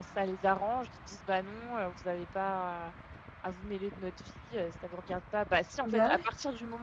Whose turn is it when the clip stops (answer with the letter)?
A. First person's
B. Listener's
A